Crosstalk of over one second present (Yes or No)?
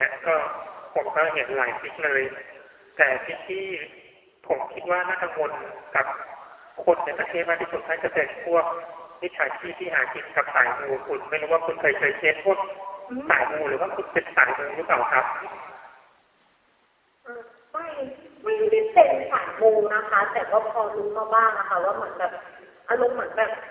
No